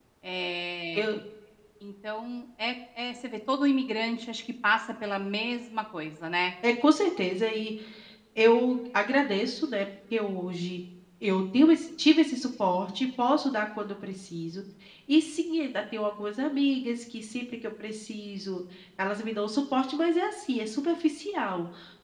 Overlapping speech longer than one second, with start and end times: none

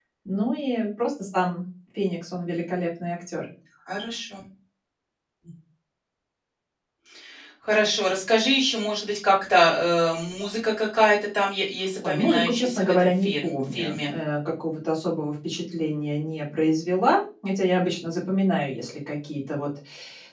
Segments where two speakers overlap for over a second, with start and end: 12.0-14.1

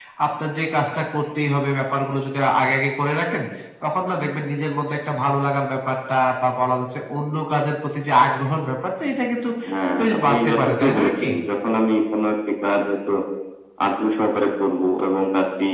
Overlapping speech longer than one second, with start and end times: 10.0-11.3

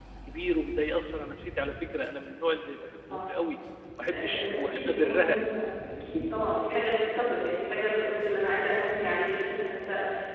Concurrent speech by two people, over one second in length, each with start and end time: 4.1-5.3

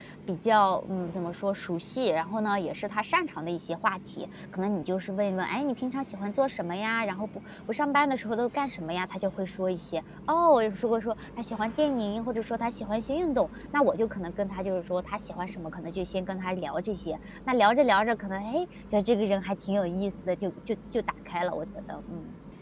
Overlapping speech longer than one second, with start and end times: none

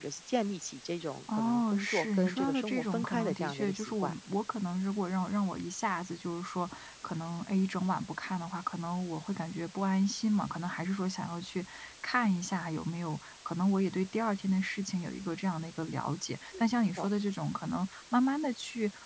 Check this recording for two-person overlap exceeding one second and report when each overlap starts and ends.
1.3-4.1

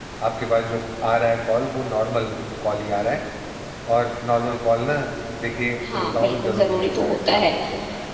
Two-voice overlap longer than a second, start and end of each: 5.9-7.4

